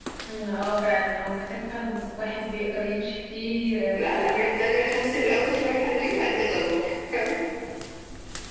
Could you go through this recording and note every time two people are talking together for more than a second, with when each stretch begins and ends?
none

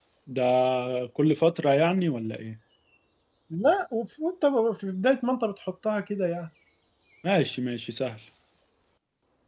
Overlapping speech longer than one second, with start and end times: none

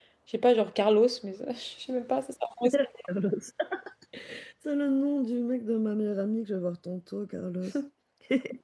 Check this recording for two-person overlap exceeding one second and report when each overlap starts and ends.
none

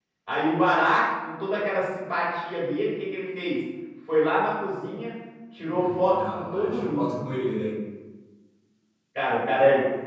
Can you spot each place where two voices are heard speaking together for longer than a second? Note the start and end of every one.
5.7-7.2

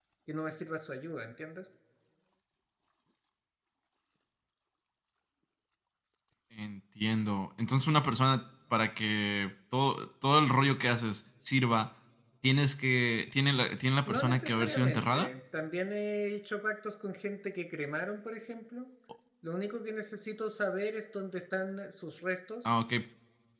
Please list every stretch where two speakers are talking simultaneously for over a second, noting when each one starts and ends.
14.1-15.3

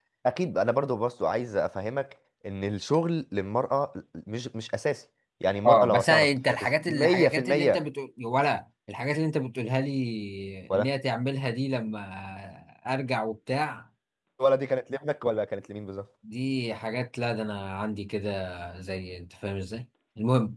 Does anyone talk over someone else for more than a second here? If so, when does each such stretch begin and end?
5.6-7.8

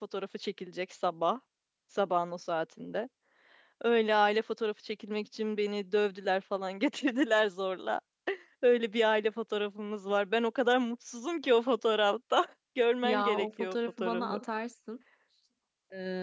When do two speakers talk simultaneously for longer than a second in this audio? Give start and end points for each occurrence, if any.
13.0-14.4

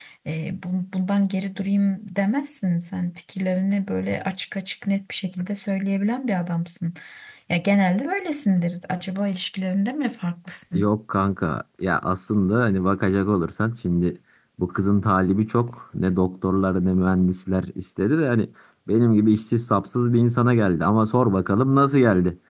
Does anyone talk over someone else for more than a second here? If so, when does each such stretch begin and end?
none

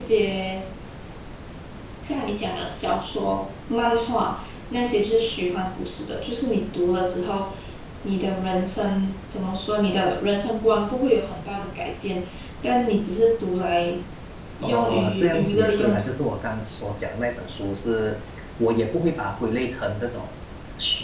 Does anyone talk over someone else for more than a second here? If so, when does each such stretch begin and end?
14.6-16.0

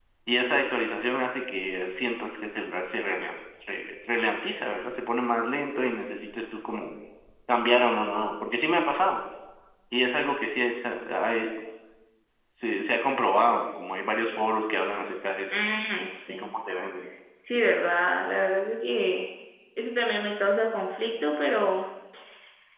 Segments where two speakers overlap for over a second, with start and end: none

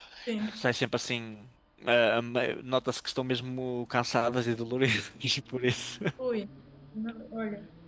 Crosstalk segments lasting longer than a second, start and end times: none

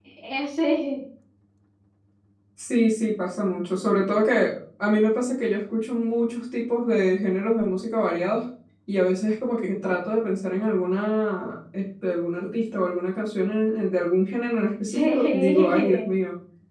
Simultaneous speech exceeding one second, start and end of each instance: 14.9-16.1

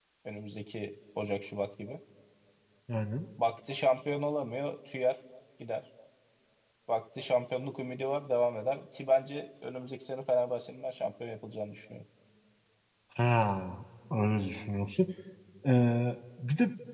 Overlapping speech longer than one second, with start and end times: none

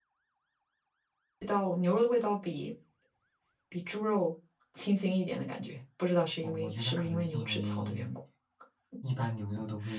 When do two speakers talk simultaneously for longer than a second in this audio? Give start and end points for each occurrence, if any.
6.4-8.0

